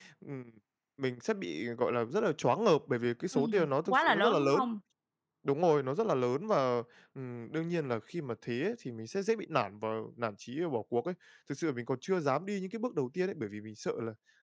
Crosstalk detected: Yes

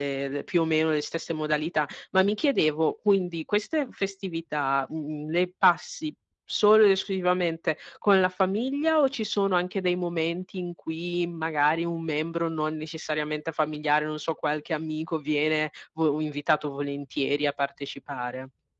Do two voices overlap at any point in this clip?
No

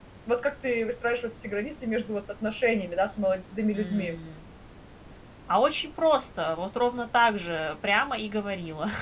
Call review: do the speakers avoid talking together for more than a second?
Yes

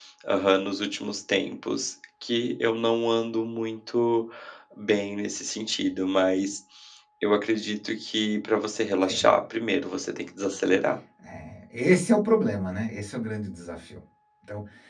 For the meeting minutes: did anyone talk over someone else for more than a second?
No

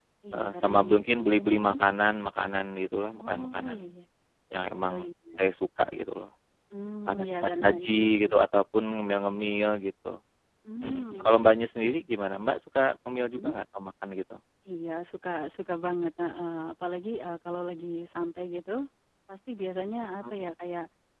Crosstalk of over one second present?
Yes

